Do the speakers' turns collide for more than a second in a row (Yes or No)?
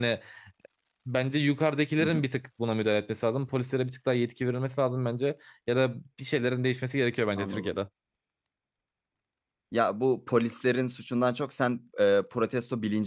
No